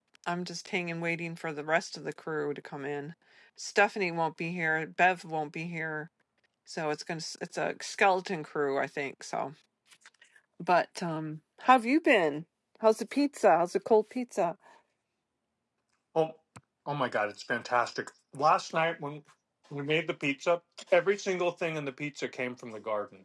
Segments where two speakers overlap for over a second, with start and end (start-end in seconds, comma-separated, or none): none